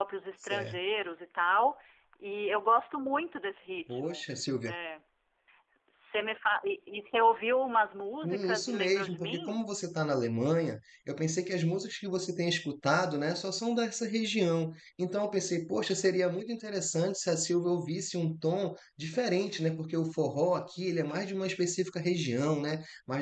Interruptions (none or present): present